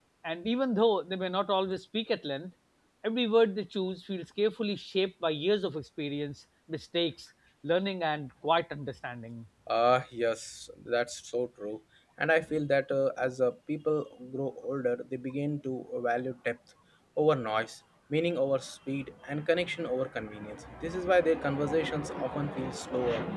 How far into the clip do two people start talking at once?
none

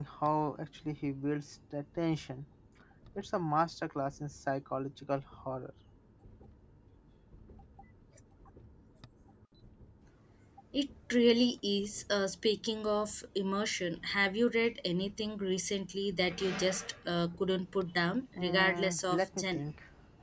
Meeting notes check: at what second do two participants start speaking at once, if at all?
18.4 s

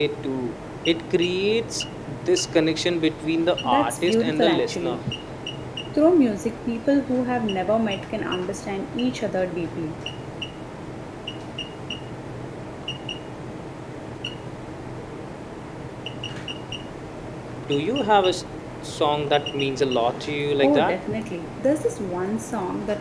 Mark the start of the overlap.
3.6 s

